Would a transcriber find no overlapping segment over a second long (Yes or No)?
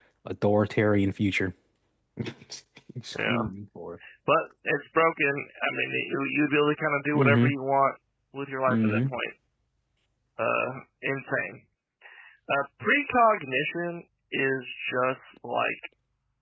Yes